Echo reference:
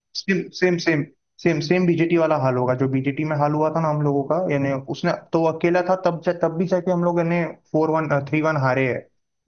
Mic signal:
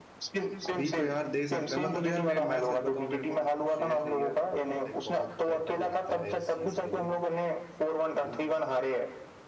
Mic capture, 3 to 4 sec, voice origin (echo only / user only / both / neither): both